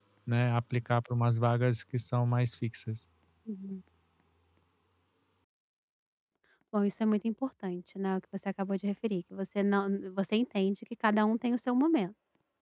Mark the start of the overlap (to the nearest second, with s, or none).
none